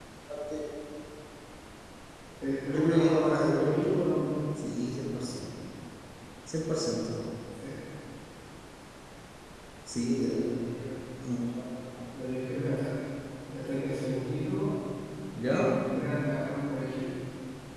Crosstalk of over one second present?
Yes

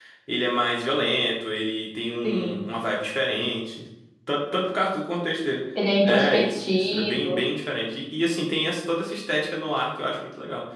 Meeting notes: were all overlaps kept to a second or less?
No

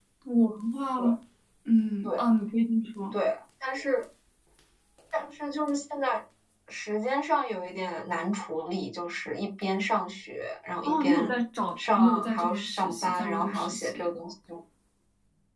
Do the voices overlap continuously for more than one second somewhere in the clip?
Yes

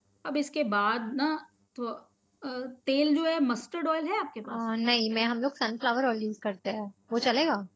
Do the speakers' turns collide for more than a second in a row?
No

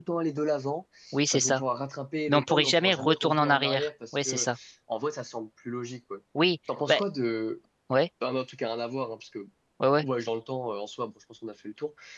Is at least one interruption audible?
Yes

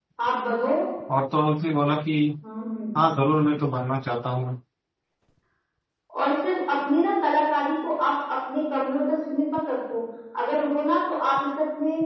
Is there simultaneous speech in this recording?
No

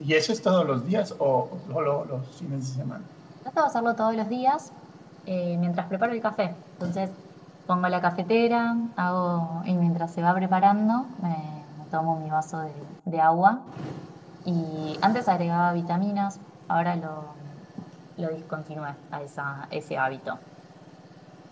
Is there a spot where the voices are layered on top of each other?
No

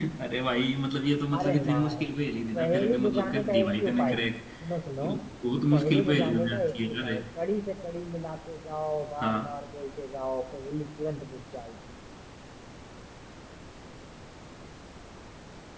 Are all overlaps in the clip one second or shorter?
No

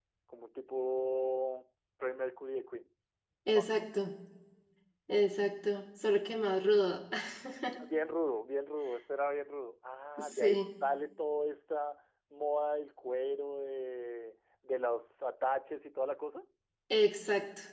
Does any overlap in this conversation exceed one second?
No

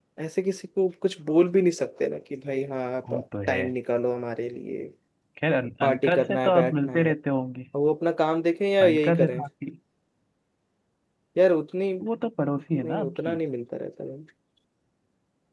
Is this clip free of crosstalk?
No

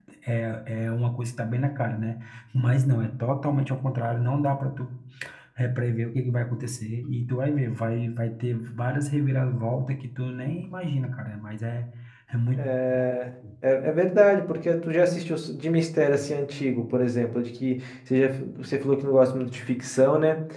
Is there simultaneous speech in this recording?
No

